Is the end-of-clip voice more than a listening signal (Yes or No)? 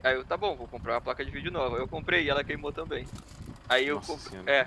No